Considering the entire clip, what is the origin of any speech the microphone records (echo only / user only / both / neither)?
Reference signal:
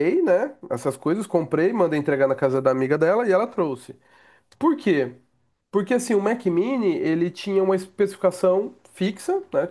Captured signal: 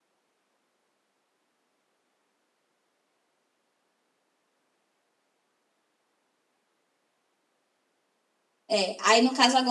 user only